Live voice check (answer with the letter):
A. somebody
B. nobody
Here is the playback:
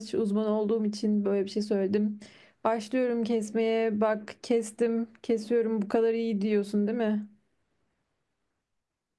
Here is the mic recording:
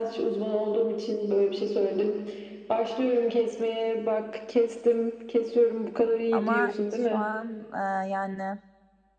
A